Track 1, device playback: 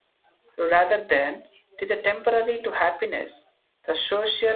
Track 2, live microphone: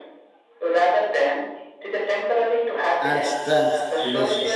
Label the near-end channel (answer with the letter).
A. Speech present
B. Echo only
A